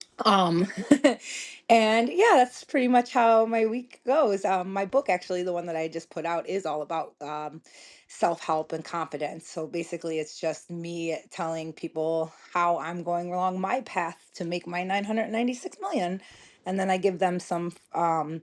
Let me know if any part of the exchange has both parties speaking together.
No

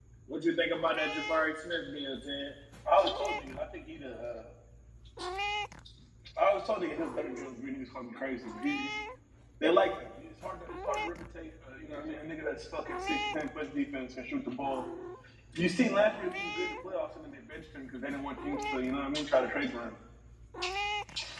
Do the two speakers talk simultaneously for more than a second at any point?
No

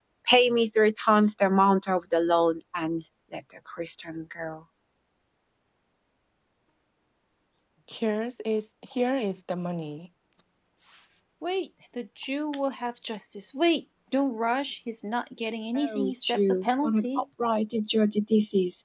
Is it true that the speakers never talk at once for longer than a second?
No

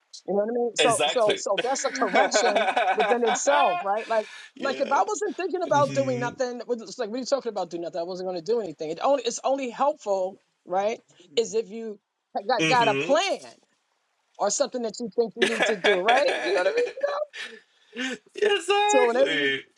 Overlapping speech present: Yes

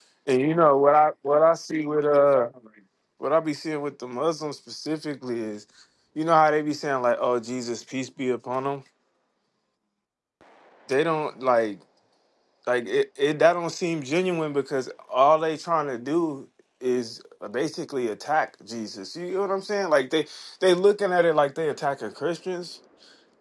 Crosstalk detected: No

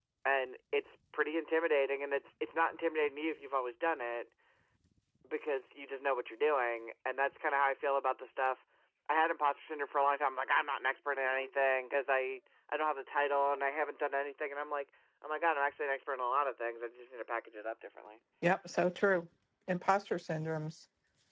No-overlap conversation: Yes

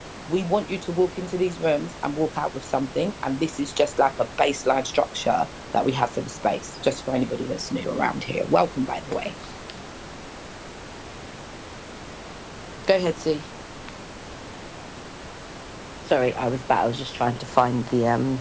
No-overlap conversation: Yes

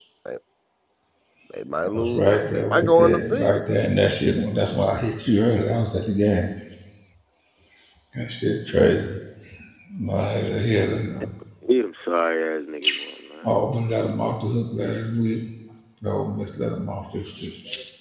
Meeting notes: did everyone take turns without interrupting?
No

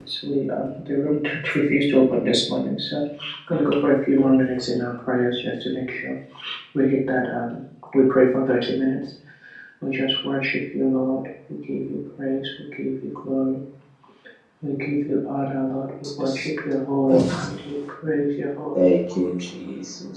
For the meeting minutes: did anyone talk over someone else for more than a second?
No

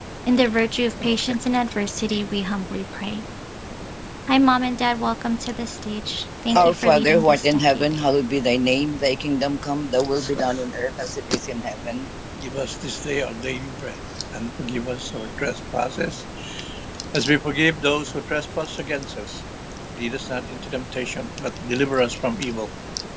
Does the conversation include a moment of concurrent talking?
Yes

